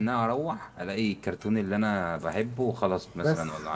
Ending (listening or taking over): taking over